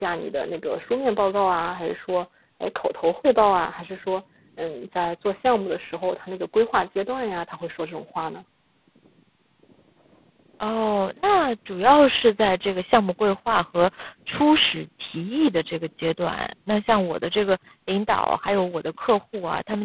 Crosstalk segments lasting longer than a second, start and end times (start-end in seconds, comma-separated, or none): none